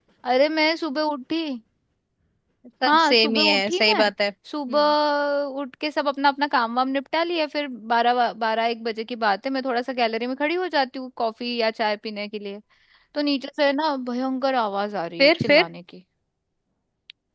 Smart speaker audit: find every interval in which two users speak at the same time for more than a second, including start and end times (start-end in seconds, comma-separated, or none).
2.9-4.1